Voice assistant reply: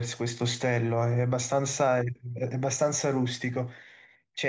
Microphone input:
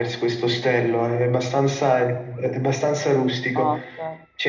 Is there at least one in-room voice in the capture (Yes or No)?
Yes